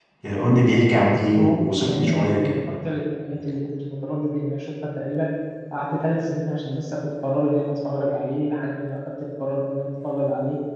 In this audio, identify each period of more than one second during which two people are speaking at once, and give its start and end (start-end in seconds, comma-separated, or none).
1.4-2.6